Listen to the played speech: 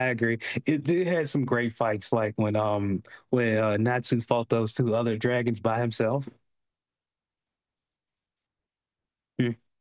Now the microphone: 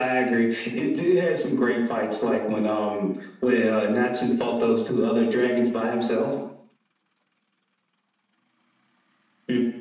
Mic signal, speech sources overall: echo only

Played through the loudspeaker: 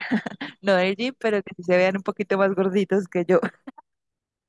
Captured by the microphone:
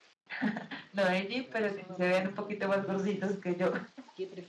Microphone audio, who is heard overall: both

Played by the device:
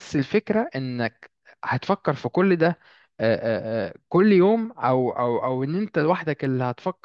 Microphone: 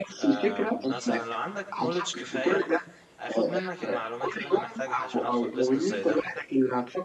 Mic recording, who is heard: both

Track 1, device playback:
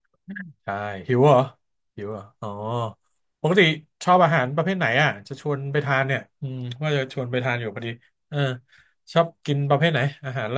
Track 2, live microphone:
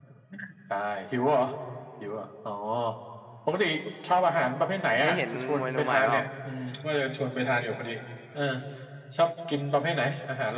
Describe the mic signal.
both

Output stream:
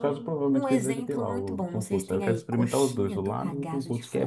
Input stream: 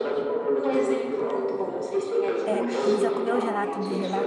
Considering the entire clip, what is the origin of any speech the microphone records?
both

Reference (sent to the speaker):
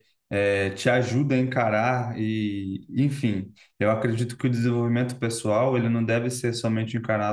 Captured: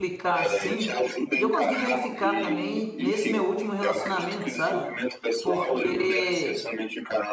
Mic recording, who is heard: both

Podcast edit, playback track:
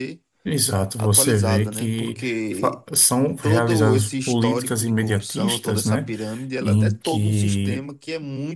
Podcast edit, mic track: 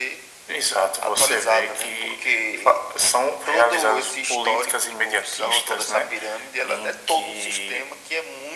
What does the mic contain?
echo only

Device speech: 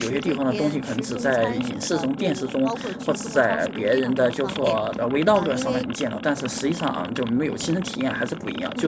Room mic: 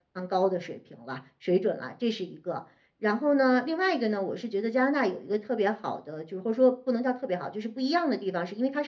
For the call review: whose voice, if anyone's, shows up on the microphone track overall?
user only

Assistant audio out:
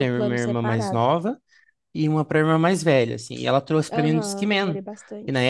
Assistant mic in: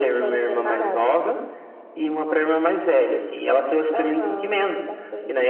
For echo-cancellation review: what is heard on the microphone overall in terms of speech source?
echo only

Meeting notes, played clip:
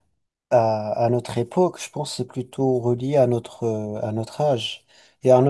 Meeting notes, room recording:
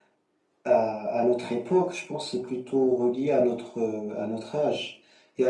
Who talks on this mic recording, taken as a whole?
echo only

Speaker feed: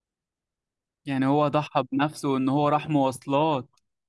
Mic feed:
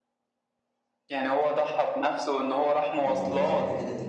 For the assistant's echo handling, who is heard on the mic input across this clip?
both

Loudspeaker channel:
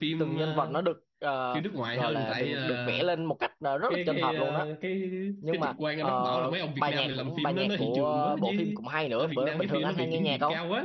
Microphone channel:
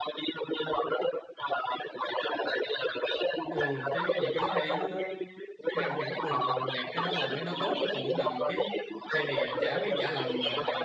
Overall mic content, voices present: both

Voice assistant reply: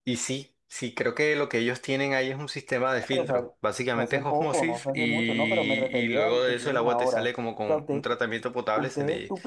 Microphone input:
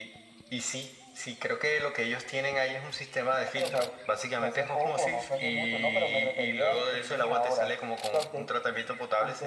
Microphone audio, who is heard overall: echo only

